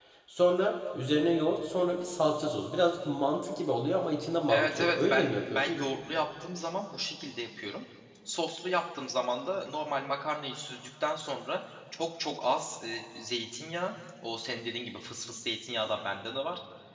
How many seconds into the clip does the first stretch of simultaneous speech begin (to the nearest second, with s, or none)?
4 s